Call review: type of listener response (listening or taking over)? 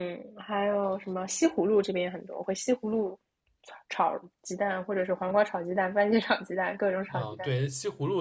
taking over